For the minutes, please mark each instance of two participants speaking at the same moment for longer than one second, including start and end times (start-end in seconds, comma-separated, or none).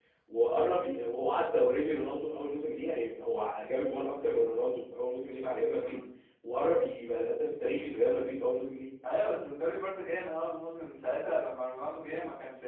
none